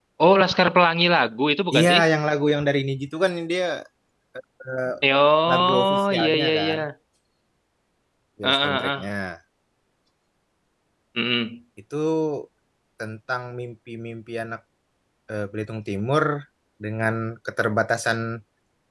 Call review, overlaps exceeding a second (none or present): present